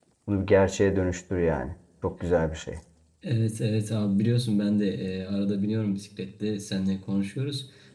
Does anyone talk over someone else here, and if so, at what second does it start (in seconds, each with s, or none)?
none